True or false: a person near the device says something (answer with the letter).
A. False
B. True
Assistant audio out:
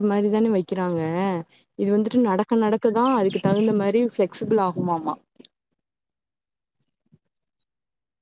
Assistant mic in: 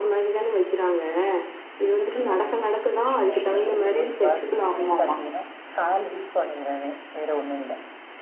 B